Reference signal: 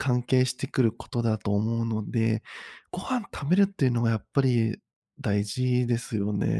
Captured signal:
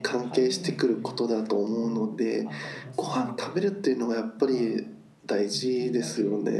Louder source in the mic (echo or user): echo